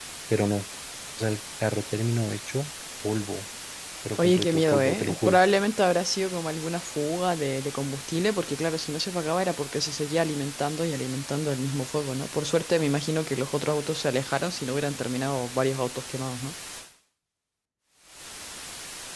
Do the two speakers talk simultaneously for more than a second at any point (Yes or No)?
Yes